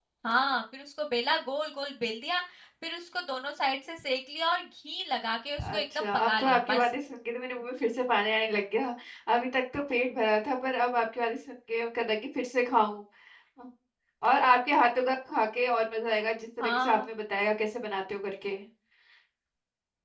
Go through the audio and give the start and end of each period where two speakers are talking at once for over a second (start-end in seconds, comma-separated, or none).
5.6-6.8